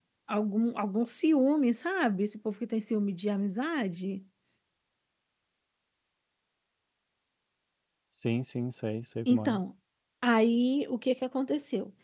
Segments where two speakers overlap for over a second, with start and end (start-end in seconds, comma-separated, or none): none